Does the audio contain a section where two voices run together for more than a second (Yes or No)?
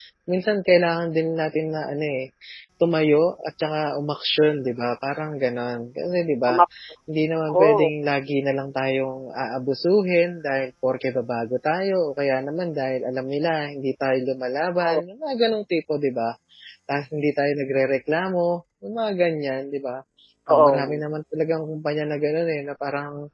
No